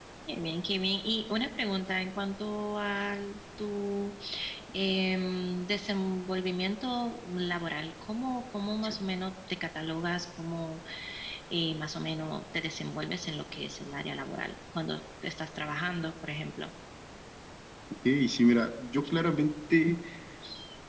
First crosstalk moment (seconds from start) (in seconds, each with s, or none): none